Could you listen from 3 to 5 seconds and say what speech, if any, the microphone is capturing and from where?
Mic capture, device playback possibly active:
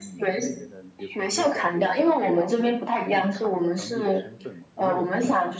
both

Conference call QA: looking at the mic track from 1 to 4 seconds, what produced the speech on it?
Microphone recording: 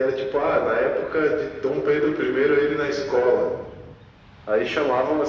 echo only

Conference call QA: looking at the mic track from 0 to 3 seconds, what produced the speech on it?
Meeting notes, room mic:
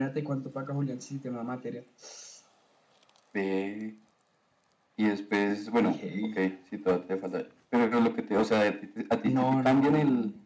echo only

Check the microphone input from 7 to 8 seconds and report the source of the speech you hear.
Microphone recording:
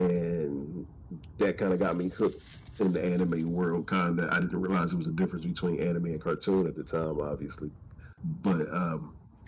echo only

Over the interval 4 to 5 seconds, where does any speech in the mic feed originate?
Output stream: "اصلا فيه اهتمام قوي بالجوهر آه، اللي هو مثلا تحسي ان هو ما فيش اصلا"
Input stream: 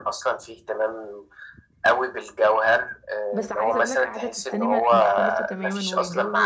both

